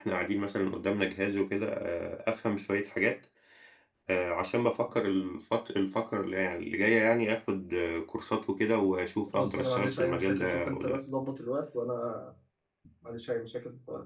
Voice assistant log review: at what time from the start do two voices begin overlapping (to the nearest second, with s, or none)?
9 s